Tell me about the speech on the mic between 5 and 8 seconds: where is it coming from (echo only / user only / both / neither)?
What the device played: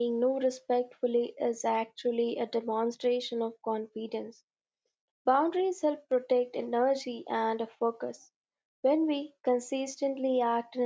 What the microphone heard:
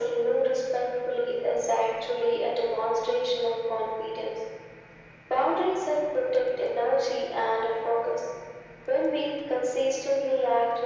echo only